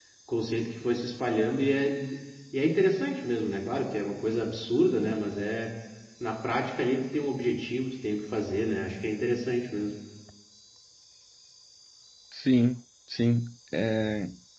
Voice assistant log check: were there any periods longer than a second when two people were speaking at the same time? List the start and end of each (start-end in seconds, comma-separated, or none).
none